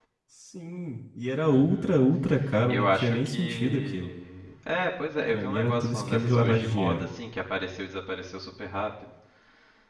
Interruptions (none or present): present